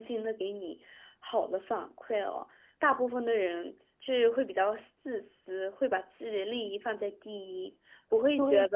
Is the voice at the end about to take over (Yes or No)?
Yes